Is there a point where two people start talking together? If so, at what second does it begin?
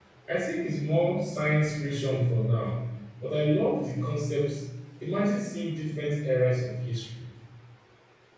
none

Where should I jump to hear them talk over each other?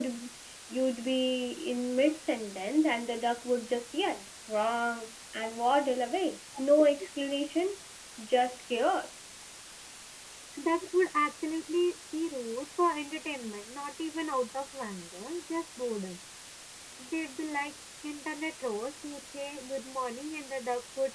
none

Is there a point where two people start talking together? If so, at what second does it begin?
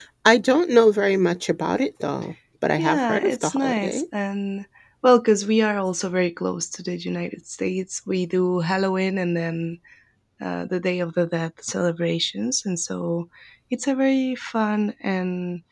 3 s

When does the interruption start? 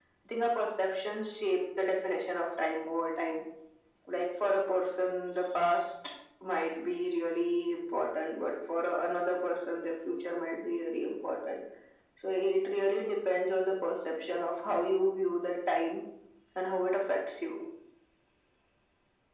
none

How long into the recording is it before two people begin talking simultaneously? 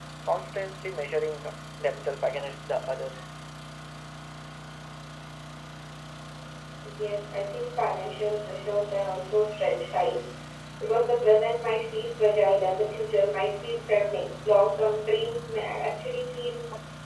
none

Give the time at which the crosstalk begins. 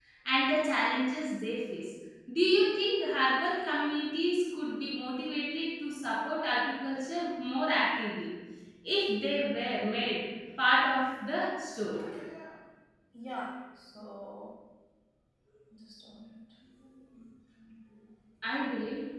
none

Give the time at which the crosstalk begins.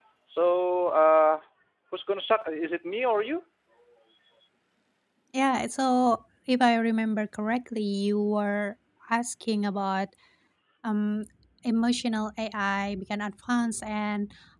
none

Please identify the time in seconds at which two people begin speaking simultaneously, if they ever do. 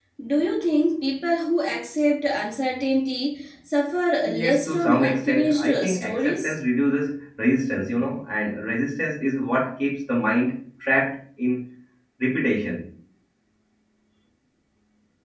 4 s

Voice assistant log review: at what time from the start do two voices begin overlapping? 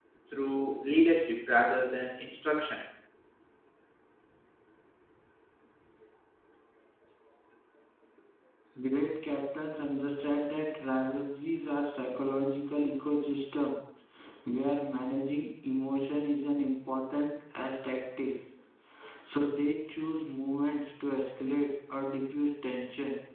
none

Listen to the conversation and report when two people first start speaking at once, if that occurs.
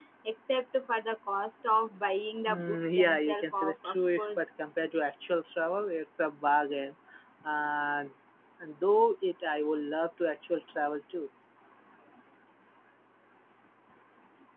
2 s

